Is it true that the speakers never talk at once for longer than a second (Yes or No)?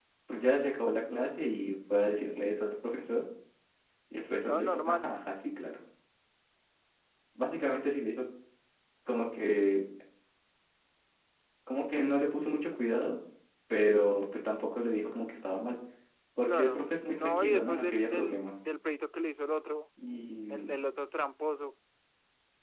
No